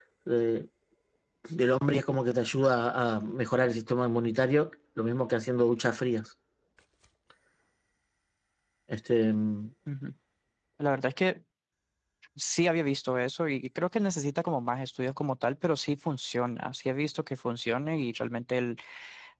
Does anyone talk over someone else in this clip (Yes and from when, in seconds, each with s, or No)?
No